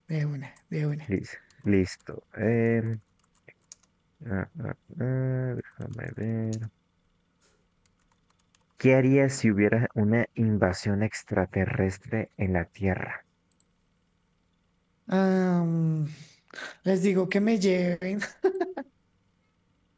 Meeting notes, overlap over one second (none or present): none